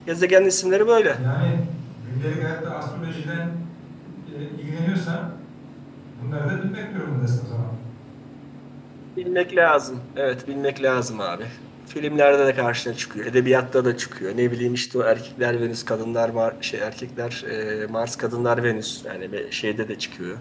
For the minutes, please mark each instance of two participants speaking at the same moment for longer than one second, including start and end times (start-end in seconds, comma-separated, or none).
none